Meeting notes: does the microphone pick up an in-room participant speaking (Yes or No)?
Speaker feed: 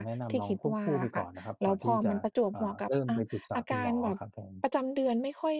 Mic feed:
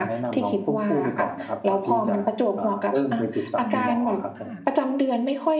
Yes